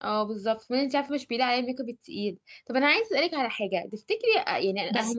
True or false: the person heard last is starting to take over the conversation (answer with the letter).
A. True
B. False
B